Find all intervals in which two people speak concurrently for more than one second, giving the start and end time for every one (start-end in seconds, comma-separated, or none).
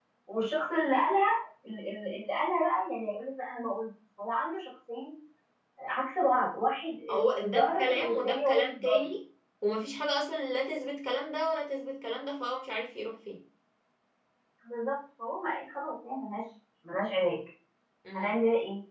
7.3-9.1